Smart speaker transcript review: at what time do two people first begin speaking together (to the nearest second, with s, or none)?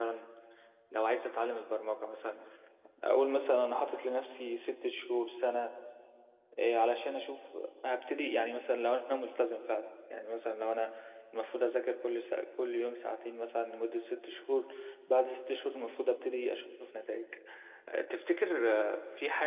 none